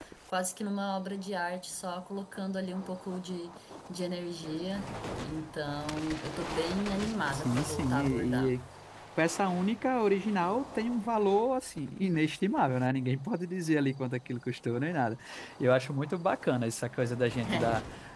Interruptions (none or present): present